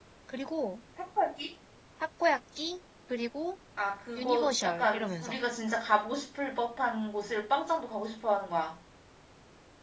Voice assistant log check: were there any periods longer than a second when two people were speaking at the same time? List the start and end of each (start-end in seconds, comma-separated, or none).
4.2-5.4